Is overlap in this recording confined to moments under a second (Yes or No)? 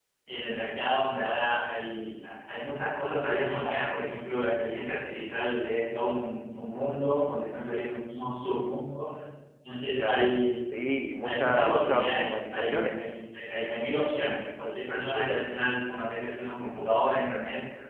No